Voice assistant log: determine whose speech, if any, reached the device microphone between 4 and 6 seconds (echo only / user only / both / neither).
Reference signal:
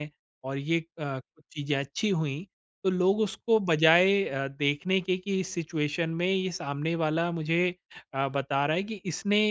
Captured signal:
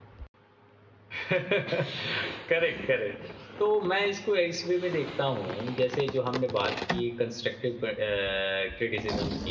user only